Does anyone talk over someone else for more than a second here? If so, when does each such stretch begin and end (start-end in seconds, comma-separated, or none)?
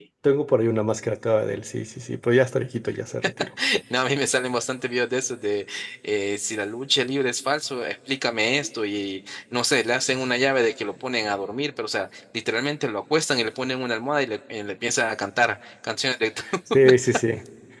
none